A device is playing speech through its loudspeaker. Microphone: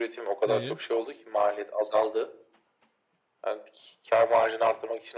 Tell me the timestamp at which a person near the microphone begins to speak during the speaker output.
0.5 s

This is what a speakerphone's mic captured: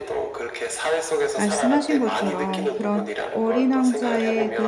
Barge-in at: 1.4 s

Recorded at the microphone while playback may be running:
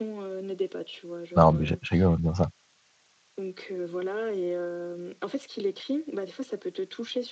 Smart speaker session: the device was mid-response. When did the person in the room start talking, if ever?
1.4 s

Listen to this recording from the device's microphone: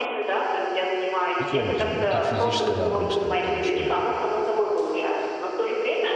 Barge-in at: 1.3 s

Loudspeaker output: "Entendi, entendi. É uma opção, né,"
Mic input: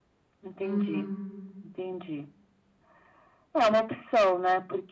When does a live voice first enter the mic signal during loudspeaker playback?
0.6 s

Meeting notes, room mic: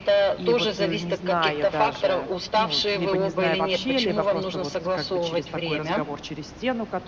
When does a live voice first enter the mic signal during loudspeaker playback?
0.4 s

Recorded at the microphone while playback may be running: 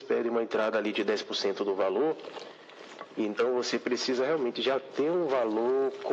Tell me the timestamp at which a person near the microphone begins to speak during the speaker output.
none

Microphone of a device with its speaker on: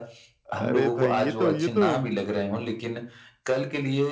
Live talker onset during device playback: 0.6 s

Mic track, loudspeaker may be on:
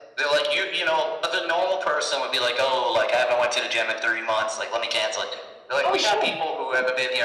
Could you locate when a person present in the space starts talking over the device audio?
5.8 s

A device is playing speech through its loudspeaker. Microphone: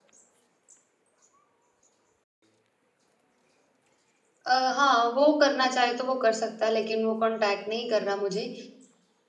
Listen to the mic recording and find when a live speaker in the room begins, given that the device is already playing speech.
4.5 s

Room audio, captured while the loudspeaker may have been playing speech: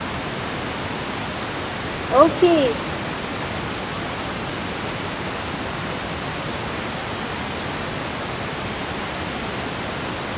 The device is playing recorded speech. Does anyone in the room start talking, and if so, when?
2.2 s

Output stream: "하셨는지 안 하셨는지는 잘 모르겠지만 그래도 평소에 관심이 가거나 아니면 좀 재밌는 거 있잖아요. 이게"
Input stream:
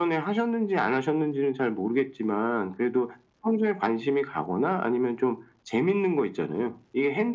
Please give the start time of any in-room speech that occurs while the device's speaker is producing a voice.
none

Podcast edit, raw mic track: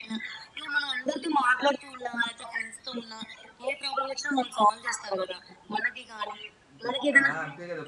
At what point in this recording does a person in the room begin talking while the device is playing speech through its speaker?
6.7 s

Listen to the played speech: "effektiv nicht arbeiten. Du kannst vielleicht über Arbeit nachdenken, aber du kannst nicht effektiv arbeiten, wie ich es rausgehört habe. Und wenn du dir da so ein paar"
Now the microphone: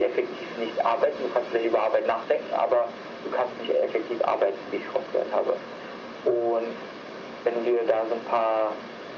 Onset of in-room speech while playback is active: none

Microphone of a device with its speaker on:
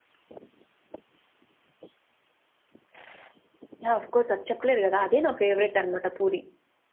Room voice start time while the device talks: 3.8 s

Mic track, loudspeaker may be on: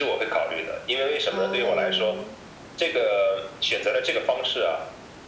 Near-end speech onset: 1.3 s

